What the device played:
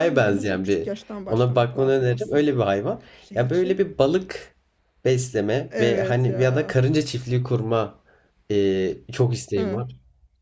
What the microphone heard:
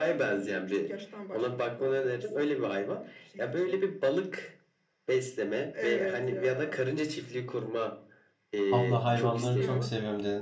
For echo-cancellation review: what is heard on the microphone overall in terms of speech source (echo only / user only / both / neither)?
both